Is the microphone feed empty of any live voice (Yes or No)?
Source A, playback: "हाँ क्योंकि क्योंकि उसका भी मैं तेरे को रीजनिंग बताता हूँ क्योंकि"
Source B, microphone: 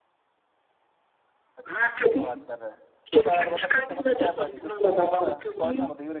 No